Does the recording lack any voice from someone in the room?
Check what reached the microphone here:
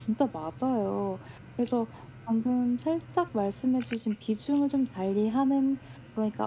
Yes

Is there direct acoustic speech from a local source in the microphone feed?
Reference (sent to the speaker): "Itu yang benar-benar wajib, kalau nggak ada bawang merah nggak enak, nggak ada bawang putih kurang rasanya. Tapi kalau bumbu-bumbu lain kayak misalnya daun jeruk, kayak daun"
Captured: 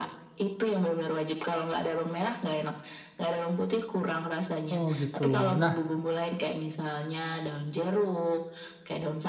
Yes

